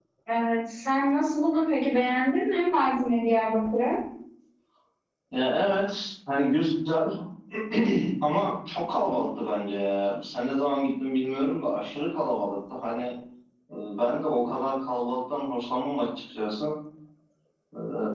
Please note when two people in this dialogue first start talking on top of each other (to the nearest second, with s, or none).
none